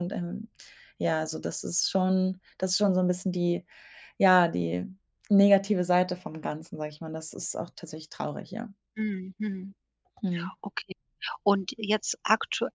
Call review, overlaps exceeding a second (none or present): none